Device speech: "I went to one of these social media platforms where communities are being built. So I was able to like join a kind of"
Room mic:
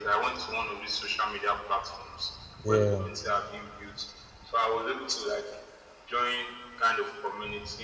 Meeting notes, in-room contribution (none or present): present